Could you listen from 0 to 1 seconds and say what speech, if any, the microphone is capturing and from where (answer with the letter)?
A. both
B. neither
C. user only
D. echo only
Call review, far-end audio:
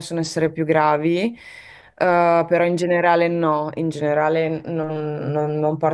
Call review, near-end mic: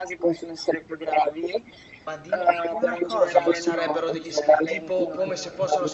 D